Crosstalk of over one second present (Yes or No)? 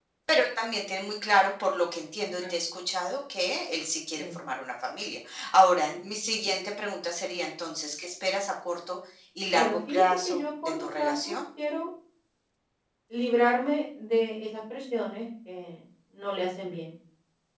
Yes